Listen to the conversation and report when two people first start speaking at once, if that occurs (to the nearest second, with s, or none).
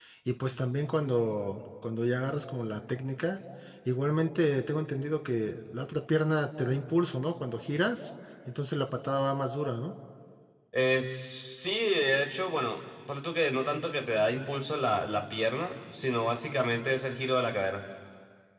none